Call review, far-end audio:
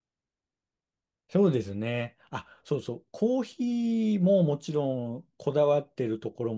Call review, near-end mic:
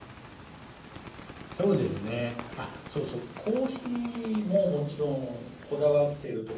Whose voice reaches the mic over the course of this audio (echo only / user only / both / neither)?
echo only